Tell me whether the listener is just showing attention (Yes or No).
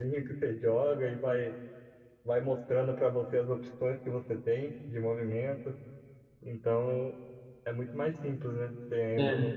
Yes